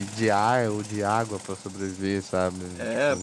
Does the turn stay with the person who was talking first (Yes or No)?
No